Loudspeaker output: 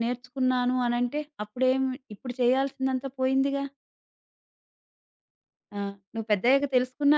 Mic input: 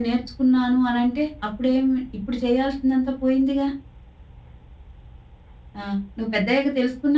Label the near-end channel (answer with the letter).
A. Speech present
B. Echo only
B